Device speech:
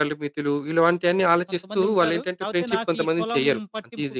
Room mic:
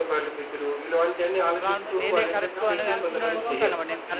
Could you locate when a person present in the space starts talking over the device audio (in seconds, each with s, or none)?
1.6 s